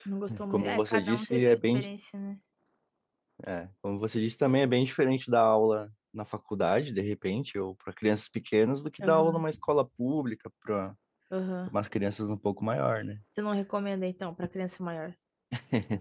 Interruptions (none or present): present